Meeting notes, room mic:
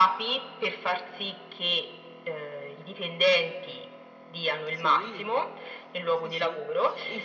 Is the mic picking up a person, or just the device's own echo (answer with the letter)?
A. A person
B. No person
A